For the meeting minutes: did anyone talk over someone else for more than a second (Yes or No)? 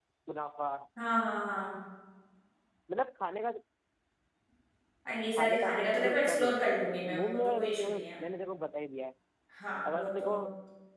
Yes